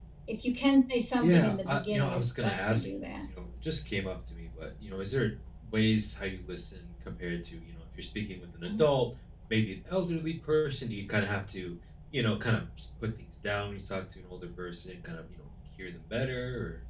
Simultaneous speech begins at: 1.2 s

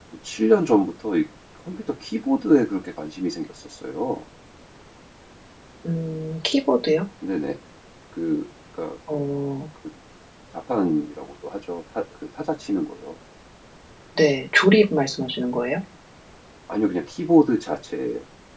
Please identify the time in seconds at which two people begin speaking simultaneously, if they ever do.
none

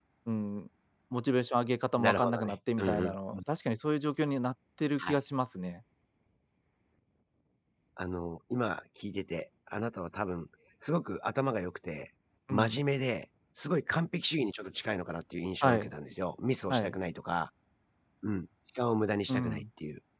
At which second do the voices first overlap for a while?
2.0 s

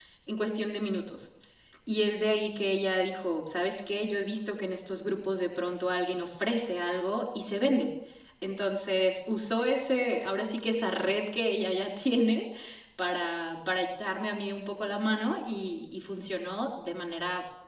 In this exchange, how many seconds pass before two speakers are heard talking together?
none

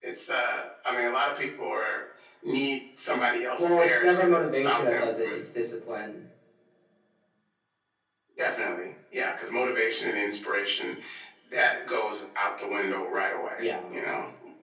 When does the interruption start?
3.6 s

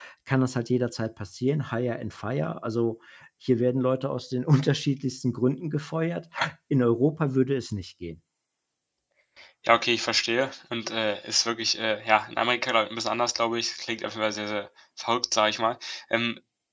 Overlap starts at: none

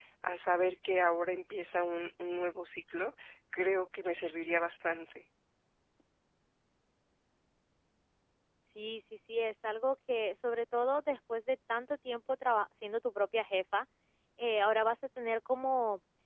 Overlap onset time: none

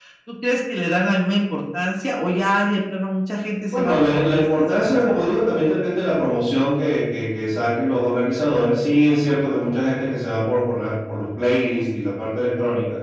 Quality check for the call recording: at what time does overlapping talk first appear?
3.7 s

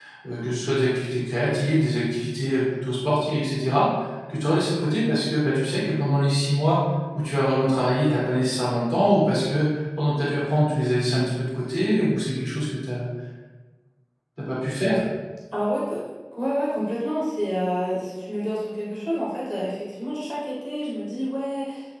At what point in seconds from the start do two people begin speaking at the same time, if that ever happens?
none

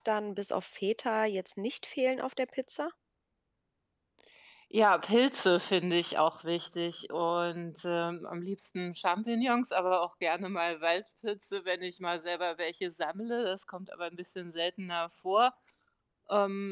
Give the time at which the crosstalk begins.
none

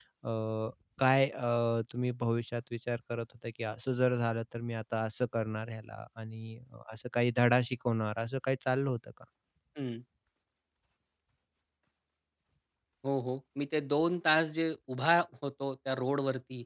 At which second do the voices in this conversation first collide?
none

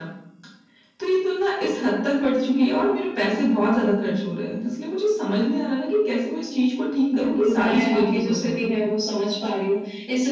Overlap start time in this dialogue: 7.1 s

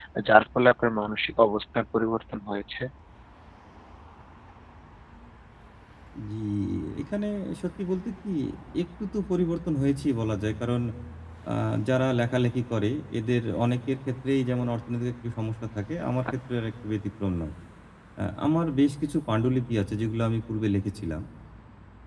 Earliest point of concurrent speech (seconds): none

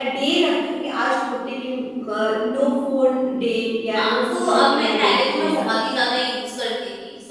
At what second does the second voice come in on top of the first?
4.0 s

